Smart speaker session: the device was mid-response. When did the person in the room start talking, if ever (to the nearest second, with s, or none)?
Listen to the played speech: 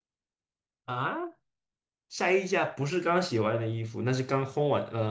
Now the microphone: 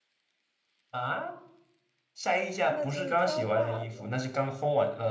3 s